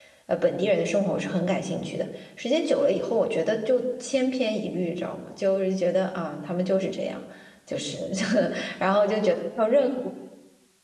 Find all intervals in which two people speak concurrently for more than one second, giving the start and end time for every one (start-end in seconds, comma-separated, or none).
none